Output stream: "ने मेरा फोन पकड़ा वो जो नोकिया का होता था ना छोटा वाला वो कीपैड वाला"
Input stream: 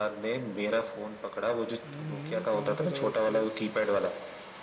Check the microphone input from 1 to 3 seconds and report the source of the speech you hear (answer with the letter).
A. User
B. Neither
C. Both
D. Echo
C